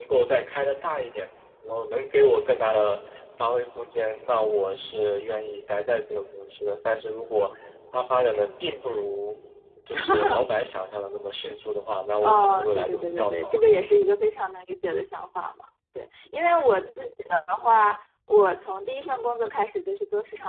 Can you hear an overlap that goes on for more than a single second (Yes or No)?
Yes